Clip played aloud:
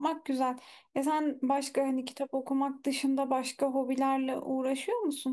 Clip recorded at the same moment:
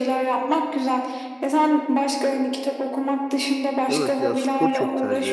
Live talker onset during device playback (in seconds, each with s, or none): 3.9 s